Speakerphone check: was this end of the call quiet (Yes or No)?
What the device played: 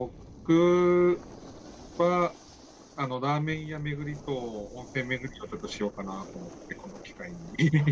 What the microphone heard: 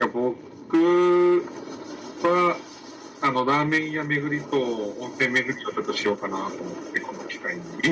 Yes